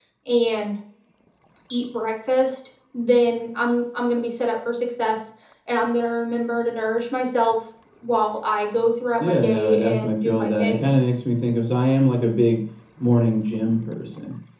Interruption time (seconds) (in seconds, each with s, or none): 9.2 s